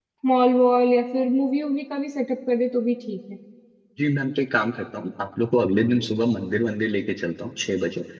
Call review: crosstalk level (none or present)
none